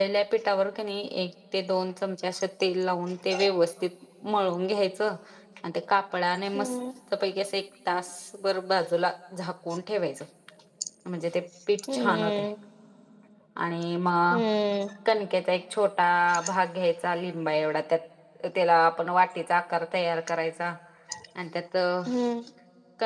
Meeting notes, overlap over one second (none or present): none